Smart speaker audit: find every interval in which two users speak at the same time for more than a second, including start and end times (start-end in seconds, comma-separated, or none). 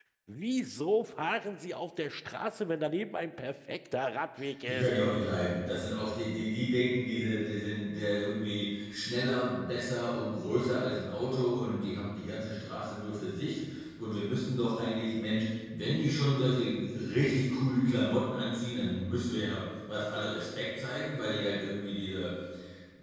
none